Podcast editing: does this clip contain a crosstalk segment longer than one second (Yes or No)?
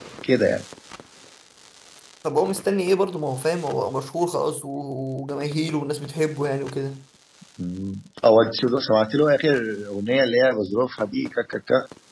No